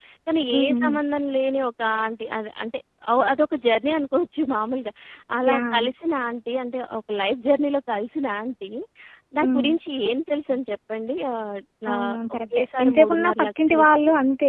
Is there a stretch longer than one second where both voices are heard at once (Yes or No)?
Yes